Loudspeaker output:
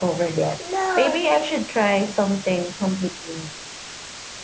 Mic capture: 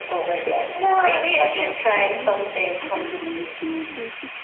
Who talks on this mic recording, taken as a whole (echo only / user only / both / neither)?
both